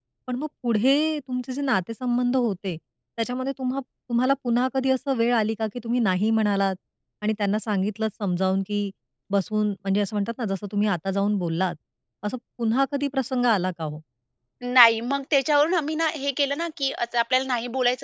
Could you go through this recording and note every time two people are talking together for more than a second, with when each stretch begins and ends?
none

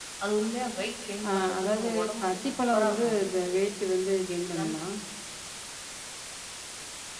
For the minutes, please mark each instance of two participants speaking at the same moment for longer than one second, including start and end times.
1.3-3.2

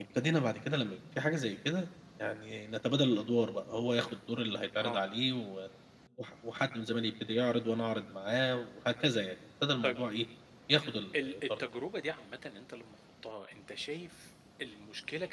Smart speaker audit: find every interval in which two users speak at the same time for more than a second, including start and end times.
none

